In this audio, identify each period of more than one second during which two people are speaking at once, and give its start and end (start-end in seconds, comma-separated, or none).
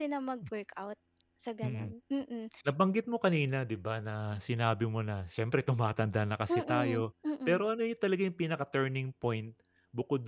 none